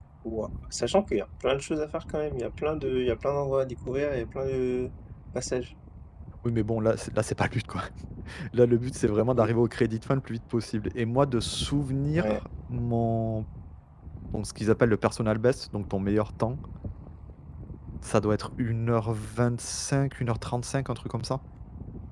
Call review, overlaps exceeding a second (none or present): none